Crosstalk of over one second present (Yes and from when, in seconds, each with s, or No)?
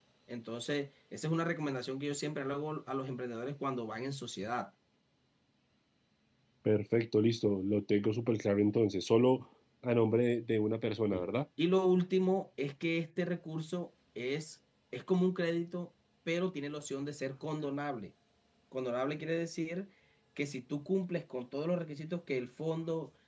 No